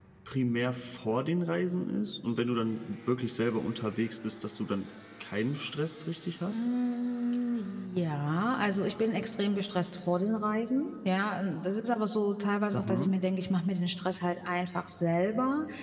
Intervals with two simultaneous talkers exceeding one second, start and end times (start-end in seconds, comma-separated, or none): none